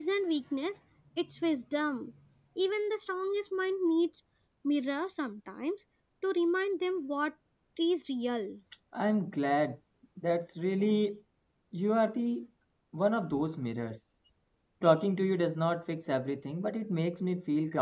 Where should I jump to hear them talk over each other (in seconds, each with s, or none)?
none